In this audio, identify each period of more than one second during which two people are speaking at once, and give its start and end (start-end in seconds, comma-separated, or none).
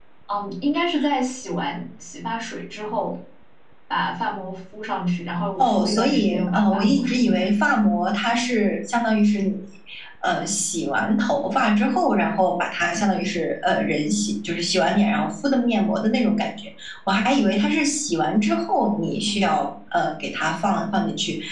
5.6-7.4